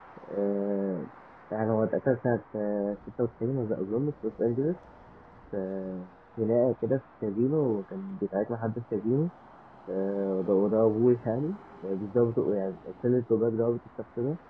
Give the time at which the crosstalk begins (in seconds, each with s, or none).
none